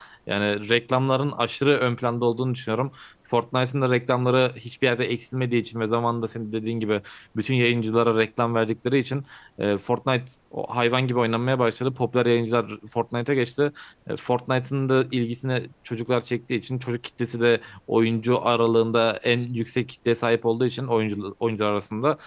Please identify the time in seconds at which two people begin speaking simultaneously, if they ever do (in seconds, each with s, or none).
none